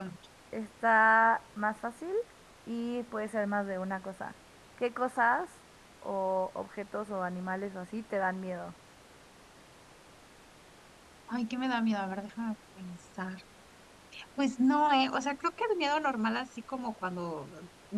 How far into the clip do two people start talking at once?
none

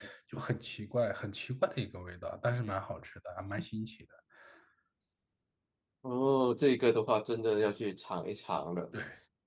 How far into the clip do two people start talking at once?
none

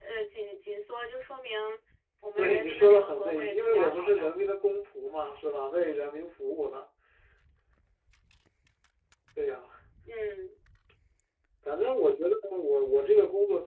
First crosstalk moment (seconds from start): 2.4 s

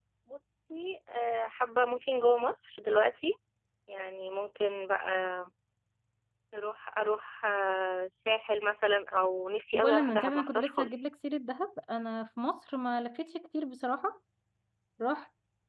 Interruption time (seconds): 9.7 s

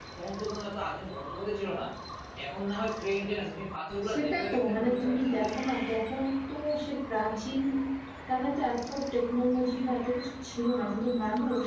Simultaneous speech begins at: 4.0 s

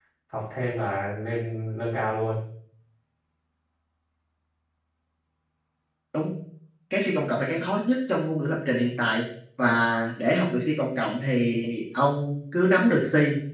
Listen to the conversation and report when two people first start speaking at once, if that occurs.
none

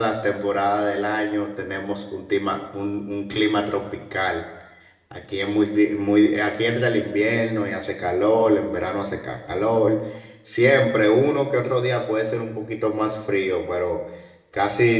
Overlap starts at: none

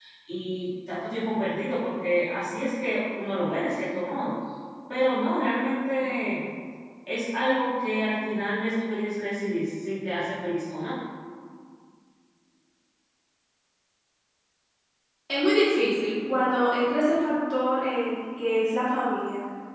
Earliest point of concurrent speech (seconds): none

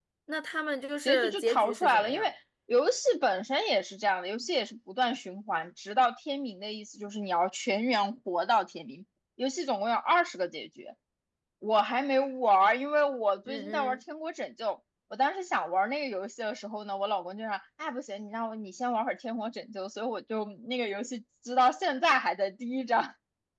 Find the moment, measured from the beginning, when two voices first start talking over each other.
1.0 s

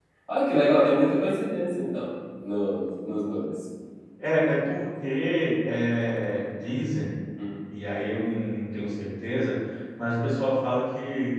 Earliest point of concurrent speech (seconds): none

